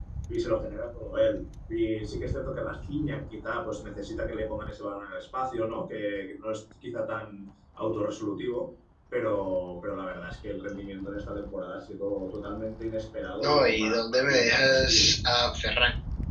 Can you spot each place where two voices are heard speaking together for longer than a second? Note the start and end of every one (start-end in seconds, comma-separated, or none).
13.4-15.1